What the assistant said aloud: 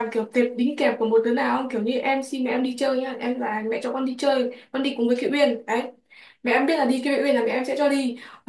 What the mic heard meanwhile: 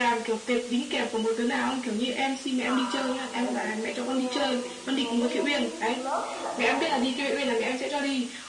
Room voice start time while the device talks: 2.6 s

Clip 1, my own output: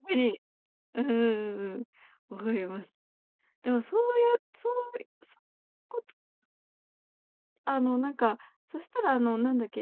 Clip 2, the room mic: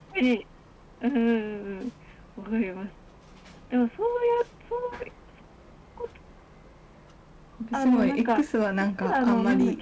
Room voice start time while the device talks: 7.6 s

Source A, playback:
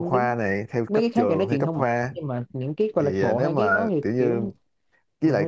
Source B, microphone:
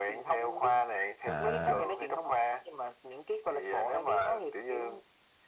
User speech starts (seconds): 1.3 s

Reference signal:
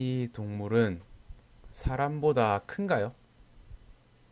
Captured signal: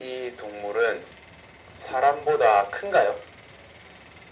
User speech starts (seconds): none

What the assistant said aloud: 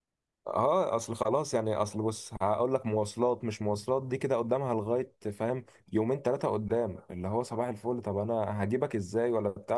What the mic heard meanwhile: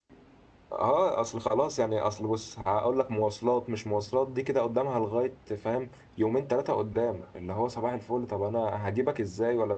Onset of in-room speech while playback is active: none

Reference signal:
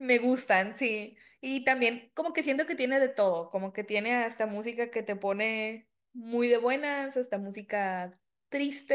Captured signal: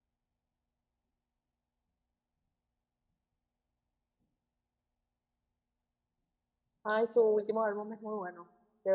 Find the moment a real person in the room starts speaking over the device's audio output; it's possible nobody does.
6.8 s

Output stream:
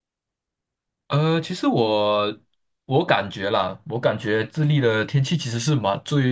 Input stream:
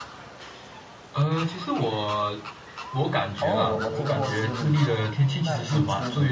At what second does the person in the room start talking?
3.4 s

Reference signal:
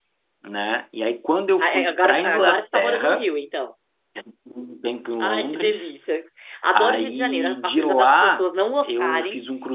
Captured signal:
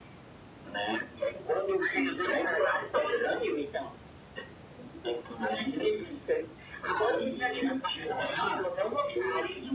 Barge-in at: none

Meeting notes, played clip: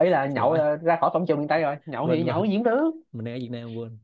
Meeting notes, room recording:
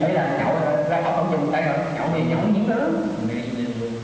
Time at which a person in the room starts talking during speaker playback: none

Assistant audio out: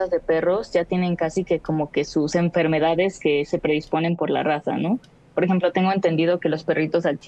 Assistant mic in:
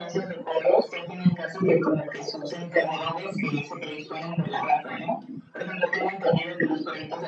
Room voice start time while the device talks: none

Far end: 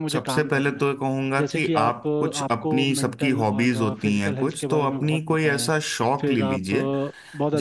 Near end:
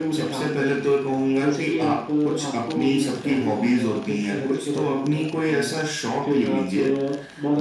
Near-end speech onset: none

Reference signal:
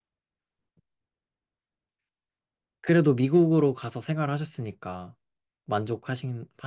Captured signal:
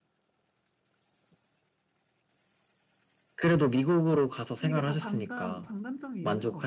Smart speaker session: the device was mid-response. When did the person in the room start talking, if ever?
4.6 s

